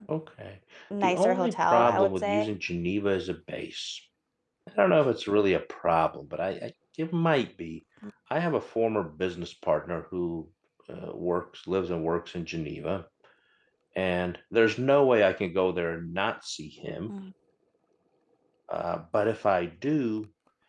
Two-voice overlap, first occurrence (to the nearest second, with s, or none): 1 s